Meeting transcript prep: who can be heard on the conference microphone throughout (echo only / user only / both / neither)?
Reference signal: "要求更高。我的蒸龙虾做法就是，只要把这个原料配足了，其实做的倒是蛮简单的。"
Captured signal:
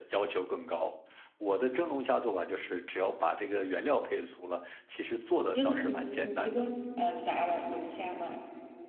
both